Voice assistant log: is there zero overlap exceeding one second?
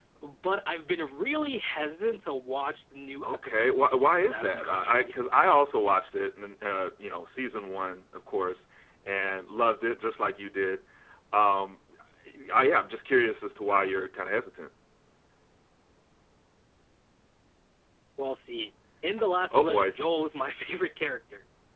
No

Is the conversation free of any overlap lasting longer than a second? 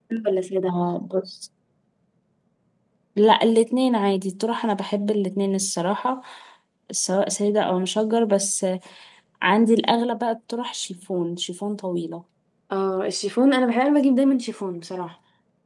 Yes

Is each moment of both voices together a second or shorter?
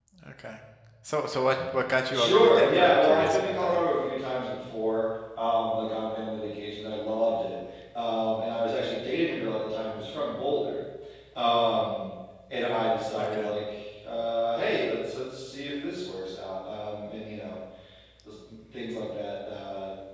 No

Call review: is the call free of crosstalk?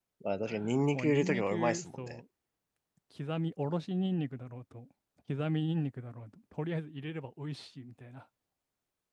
No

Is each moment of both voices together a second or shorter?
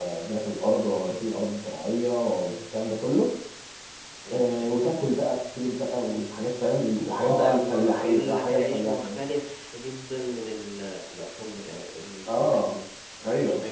No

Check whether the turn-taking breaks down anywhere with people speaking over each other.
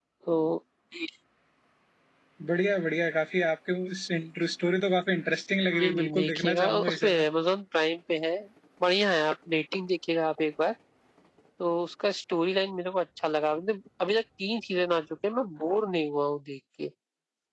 Yes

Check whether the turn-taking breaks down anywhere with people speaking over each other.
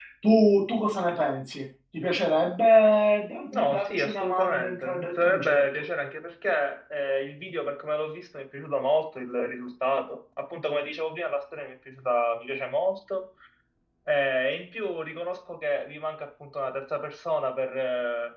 Yes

